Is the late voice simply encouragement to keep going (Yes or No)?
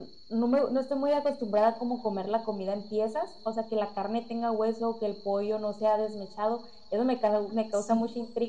Yes